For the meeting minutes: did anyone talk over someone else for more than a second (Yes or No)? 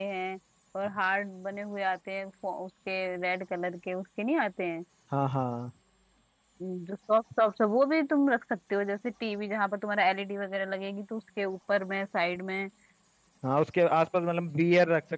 No